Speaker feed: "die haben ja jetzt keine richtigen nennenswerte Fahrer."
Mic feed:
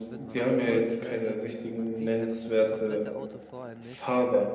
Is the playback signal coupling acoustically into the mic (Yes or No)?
Yes